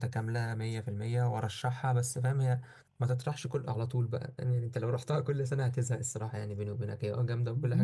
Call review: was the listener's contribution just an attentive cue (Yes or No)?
No